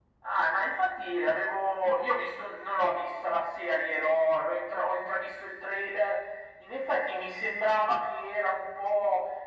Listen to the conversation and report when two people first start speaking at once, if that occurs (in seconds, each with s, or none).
none